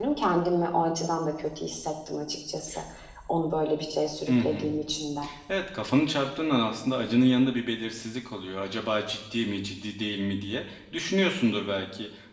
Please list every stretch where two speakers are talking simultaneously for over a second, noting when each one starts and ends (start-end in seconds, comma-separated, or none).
none